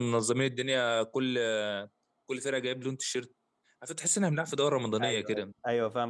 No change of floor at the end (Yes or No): No